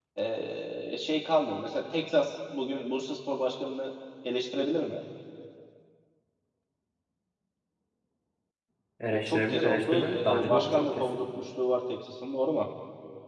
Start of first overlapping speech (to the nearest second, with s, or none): 9 s